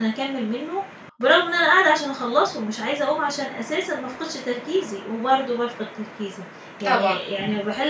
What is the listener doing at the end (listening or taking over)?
listening